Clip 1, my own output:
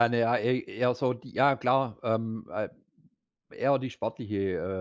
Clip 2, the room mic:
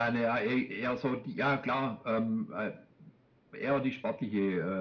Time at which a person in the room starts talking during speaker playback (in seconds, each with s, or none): none